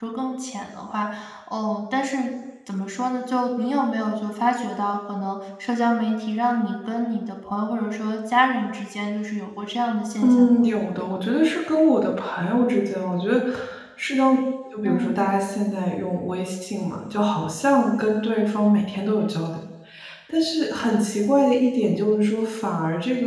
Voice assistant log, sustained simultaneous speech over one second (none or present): none